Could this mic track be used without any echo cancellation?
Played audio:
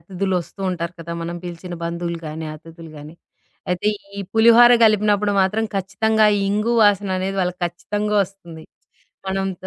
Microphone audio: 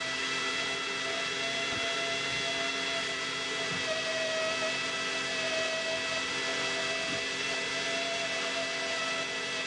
Yes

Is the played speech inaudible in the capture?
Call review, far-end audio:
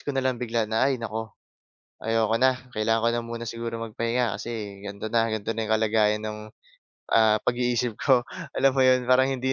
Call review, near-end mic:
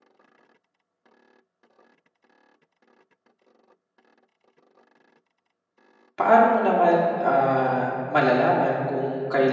Yes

